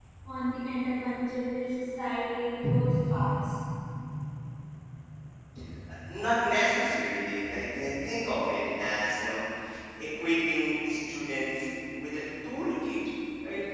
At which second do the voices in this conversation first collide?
none

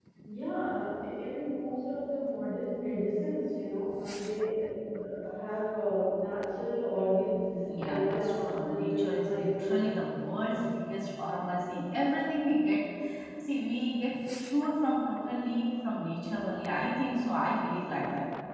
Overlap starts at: 7.8 s

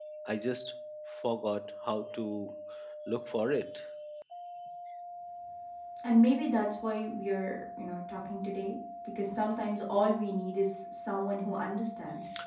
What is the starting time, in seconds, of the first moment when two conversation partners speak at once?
none

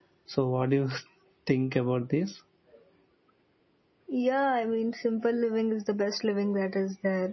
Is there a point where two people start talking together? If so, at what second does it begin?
none

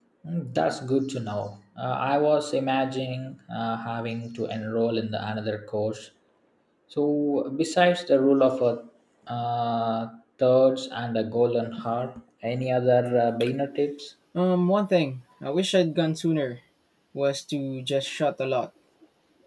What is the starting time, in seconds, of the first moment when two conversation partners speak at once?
none

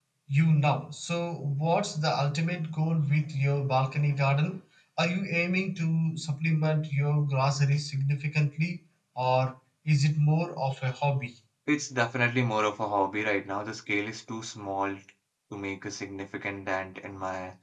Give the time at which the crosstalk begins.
none

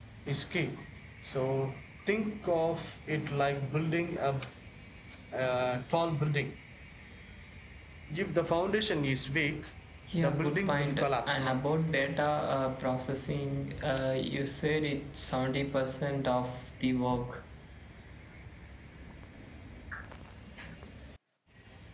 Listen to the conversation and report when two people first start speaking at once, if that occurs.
10.2 s

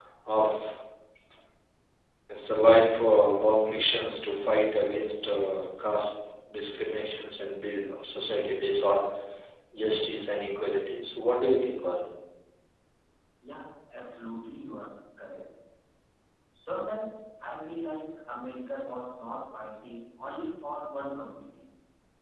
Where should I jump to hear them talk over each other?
none

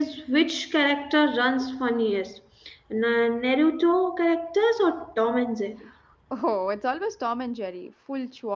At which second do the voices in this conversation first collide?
none

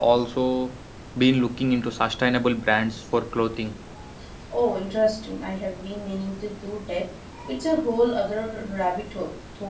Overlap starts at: none

